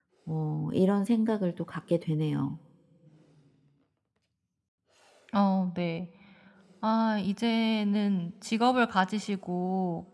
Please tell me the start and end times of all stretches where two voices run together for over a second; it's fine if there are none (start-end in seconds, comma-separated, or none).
none